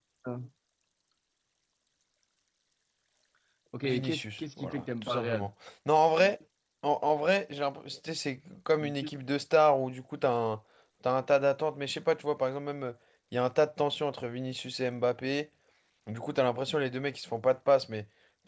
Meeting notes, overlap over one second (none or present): present